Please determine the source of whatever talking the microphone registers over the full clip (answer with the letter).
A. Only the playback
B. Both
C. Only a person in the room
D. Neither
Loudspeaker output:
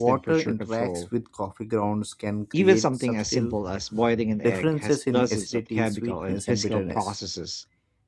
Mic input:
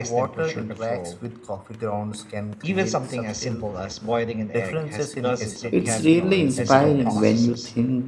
B